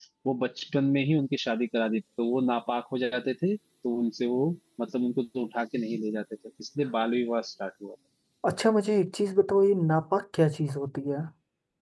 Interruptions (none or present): none